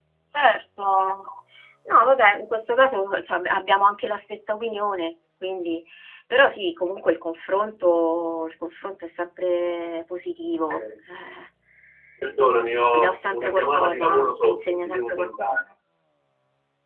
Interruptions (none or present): present